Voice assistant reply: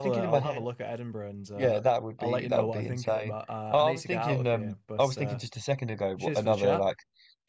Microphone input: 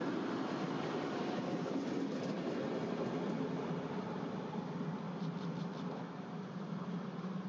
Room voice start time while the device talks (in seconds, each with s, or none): none